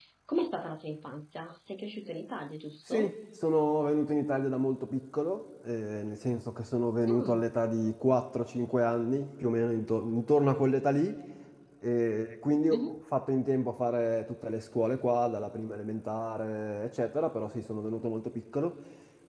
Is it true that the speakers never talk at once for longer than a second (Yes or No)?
Yes